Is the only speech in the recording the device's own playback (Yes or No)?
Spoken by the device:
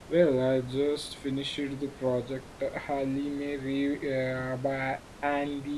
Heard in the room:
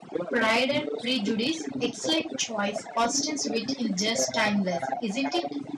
No